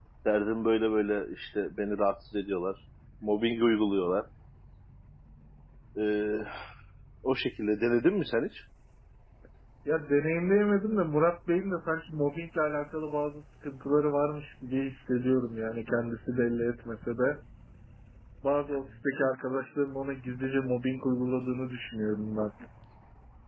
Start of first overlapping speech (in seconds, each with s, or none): none